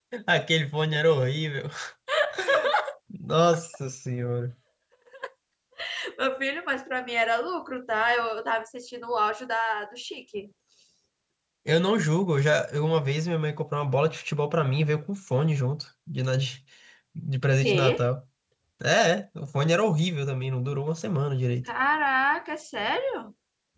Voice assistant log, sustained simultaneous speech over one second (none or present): none